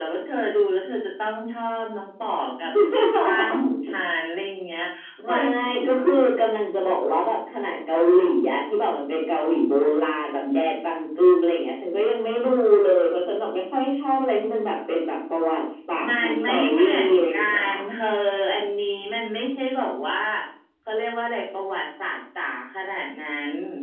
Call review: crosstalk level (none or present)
present